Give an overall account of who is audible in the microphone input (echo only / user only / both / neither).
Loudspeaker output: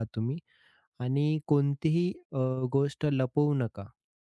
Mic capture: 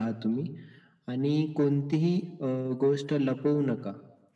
echo only